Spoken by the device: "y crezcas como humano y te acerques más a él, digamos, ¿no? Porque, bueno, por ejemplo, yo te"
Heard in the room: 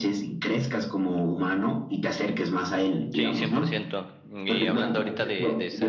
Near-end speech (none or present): present